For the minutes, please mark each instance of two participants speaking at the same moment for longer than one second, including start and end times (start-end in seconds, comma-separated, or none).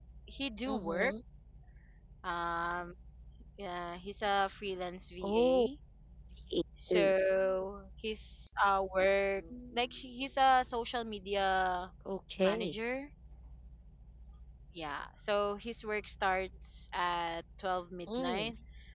none